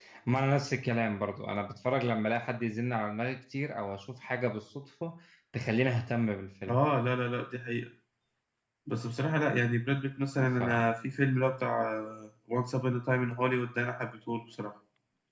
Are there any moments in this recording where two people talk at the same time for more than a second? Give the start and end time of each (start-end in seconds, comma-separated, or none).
none